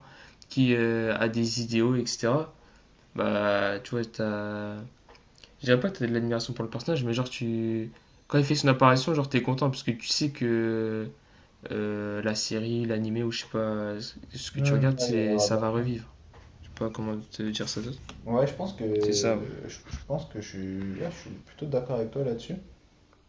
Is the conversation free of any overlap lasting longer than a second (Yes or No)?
No